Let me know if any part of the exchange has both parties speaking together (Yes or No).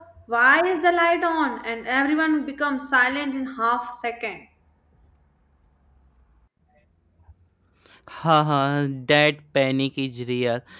No